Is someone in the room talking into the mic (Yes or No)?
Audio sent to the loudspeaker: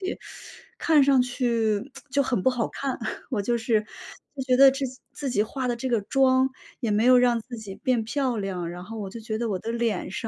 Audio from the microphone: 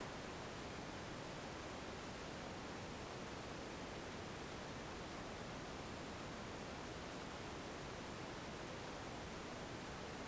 No